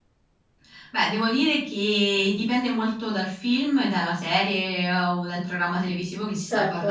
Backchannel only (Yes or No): Yes